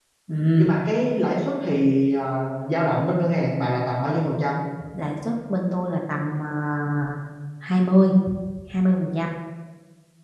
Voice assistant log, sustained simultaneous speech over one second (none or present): none